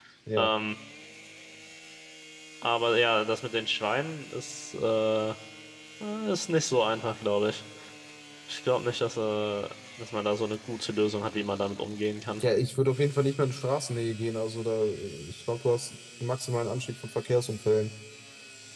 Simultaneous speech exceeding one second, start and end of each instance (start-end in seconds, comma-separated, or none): none